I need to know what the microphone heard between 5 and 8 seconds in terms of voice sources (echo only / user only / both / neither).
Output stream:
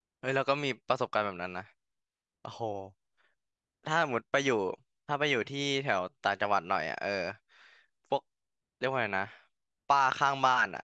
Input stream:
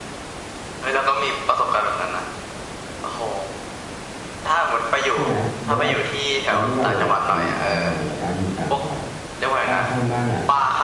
both